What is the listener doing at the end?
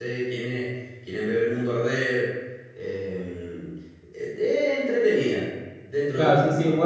taking over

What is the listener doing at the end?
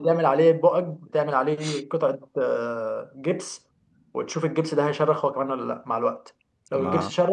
listening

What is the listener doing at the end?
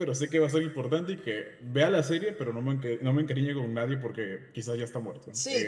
taking over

